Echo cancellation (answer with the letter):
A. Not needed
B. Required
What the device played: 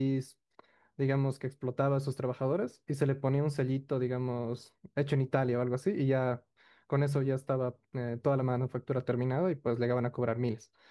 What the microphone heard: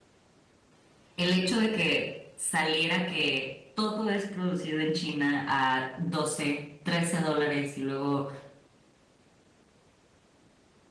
A